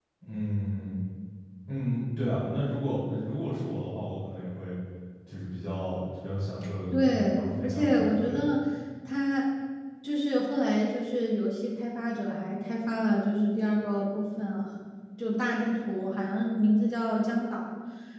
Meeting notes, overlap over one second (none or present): present